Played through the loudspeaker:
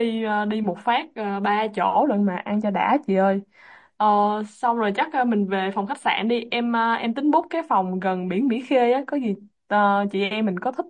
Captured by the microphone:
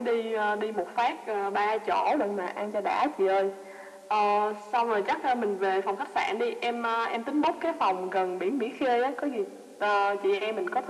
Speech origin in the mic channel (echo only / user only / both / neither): echo only